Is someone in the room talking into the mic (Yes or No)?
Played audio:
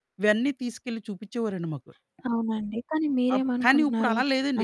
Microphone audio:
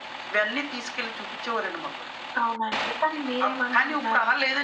No